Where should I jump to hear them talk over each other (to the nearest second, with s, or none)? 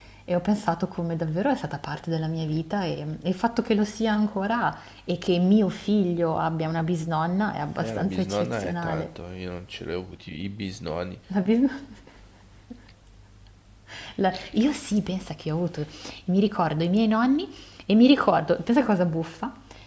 8 s